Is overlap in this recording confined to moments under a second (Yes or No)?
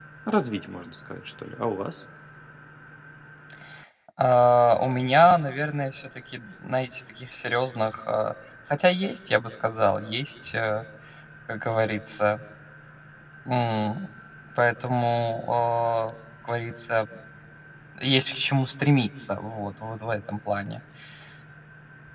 Yes